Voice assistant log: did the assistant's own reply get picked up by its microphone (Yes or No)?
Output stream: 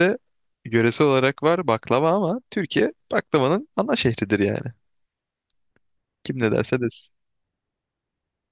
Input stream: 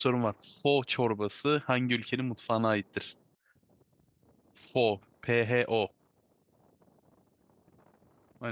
No